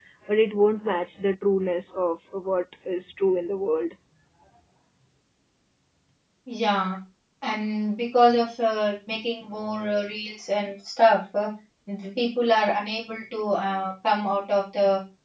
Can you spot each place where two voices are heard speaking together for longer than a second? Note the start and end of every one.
none

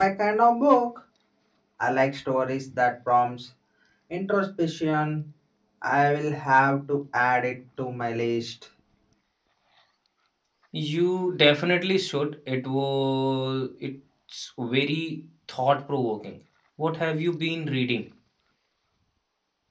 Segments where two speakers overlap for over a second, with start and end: none

